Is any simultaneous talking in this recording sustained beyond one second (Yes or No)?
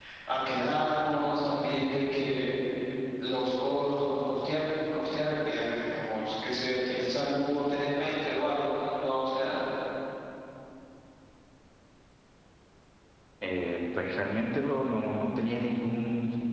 No